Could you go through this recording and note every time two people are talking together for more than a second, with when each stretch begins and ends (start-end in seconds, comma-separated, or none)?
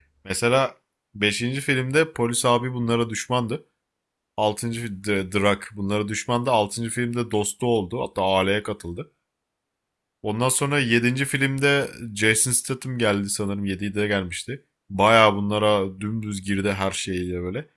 none